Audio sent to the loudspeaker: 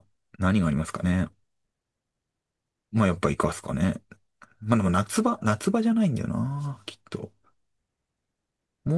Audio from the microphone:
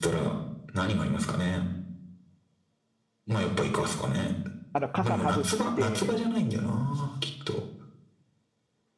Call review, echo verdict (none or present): present